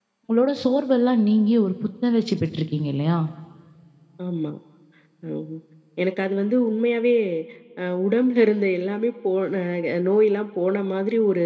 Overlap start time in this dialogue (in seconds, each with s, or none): none